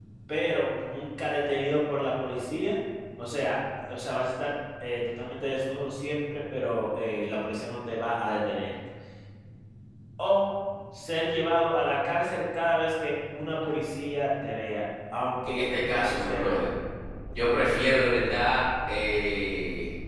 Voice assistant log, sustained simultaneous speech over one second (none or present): present